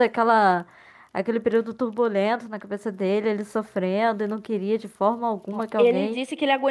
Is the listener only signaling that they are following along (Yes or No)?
No